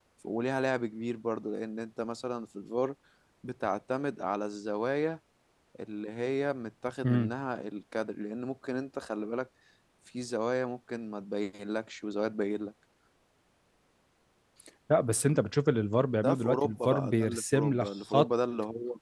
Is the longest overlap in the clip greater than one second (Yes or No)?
Yes